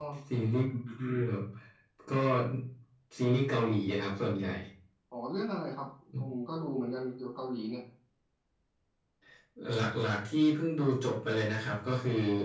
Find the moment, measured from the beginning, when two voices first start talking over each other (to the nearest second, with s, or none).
none